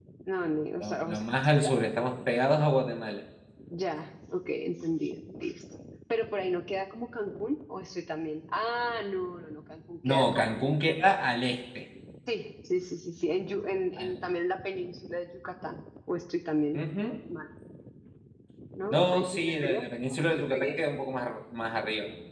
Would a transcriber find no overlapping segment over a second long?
No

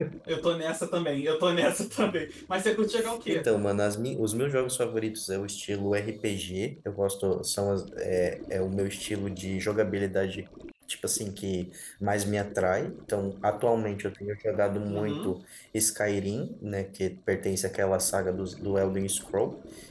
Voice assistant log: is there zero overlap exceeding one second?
Yes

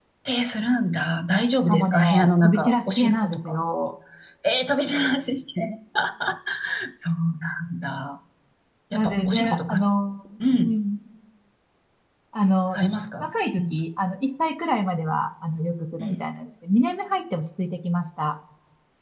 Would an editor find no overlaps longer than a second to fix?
No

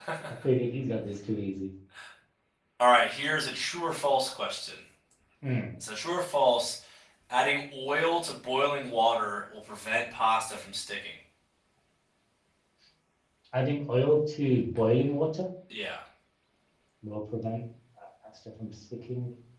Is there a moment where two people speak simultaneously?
No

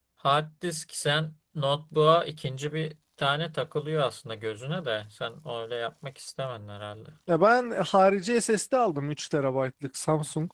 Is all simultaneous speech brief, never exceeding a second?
Yes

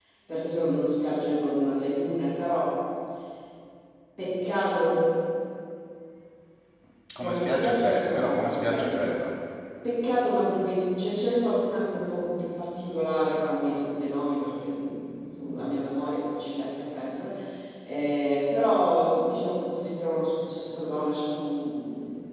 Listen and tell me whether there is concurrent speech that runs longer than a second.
Yes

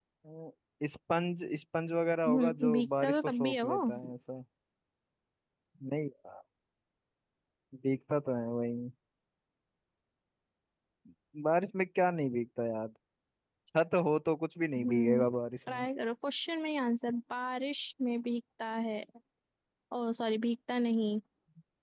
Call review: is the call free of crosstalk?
No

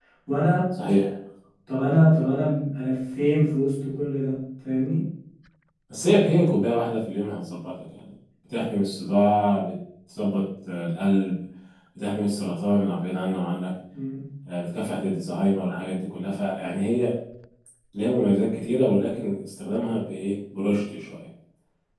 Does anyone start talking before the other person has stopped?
No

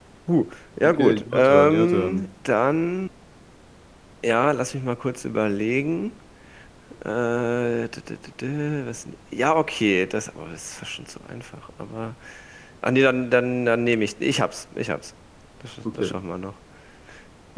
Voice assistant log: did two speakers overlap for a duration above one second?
Yes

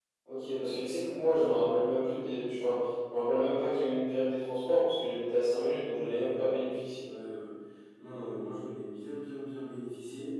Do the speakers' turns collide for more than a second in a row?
No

